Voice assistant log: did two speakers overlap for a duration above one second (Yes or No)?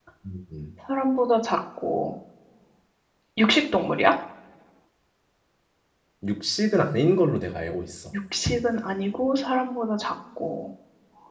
No